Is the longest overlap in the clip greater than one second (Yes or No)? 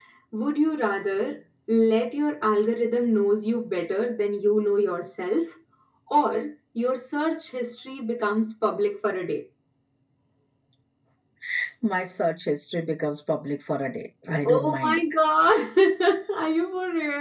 No